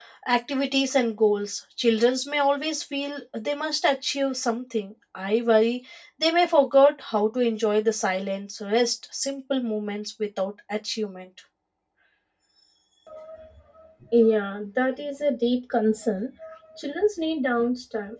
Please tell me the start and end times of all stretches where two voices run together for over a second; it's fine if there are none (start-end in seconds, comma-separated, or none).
none